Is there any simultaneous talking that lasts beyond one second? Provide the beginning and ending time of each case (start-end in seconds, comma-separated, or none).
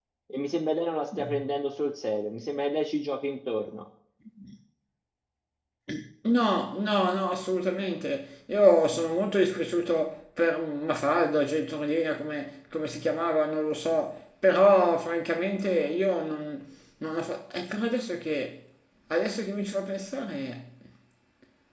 none